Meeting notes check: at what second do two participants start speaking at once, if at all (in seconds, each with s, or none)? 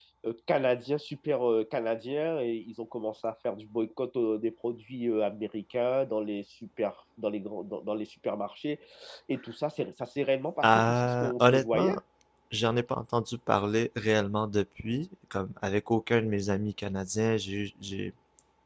10.6 s